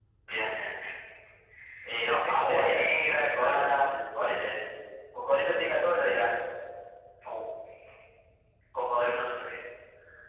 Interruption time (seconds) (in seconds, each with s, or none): 2.3 s